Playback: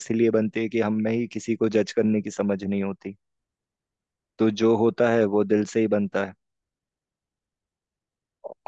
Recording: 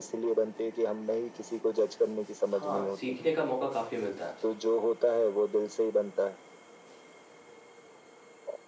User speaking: Yes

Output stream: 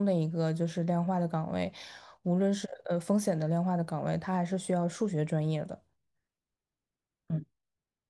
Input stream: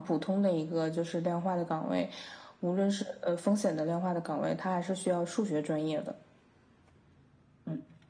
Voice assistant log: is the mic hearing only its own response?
Yes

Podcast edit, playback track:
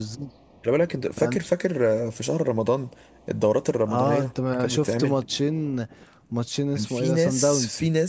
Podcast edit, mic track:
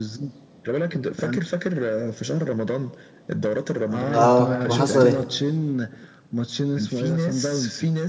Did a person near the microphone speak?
Yes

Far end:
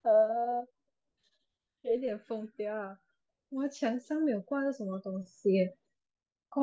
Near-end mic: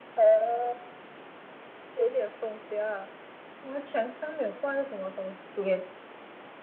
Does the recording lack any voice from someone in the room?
Yes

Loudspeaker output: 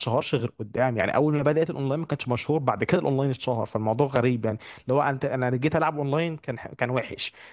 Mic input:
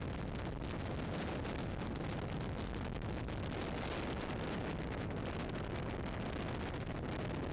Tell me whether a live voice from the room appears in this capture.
No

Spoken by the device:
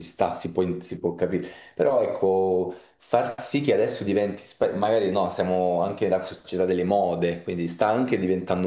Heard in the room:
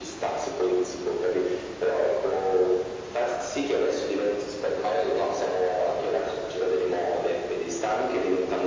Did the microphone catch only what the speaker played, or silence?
Yes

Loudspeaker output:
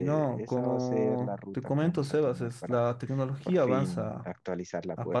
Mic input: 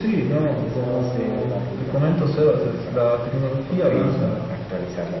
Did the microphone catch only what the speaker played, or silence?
Yes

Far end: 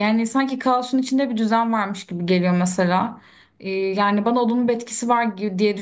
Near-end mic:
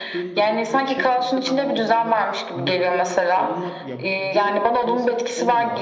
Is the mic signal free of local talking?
No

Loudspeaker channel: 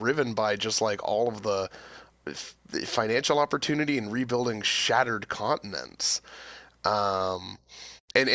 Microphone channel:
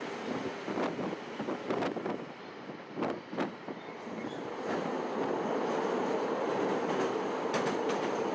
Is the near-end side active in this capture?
No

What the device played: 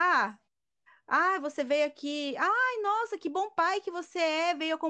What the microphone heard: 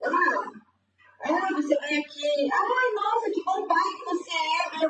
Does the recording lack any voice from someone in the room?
Yes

